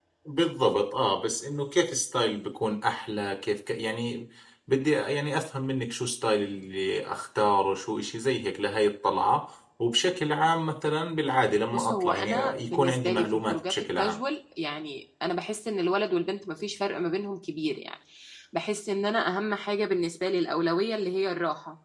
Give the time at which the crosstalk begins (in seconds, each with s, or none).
11.7 s